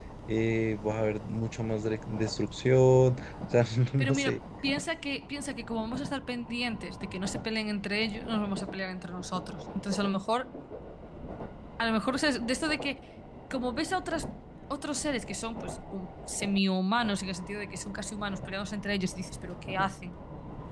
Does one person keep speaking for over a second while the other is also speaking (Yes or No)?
No